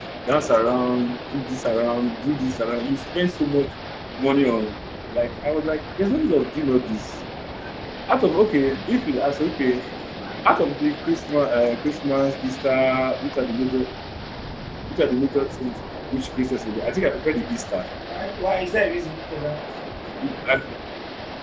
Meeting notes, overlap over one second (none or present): none